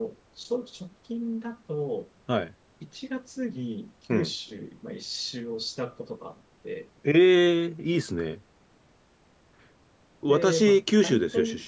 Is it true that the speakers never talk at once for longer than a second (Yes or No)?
No